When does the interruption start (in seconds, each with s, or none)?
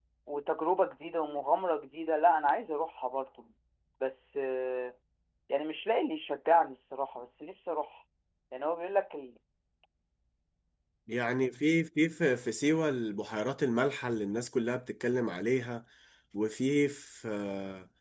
none